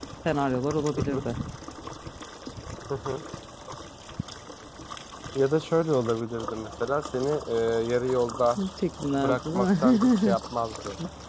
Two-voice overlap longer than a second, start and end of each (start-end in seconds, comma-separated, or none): 9.1-10.4